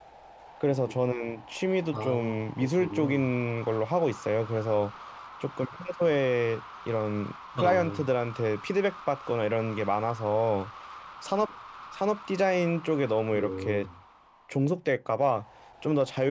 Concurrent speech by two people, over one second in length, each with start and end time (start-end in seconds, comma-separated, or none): 1.9-3.2